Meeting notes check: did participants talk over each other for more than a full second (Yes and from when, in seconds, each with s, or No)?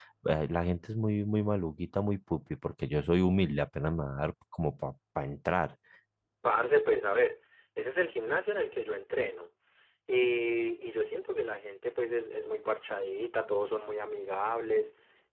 No